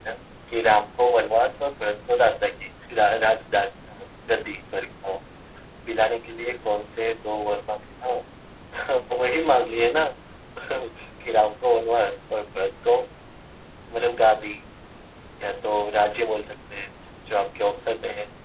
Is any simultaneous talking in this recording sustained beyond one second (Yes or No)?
No